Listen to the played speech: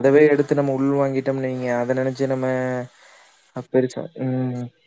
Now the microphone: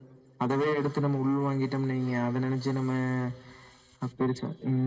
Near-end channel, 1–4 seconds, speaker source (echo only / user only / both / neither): echo only